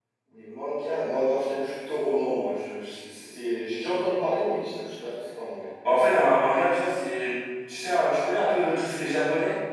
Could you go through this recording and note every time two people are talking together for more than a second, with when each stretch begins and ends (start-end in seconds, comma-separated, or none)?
none